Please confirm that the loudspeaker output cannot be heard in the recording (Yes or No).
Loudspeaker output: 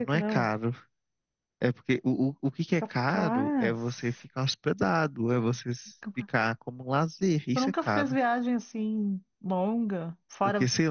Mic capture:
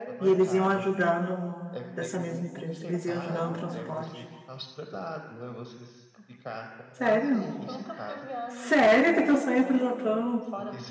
No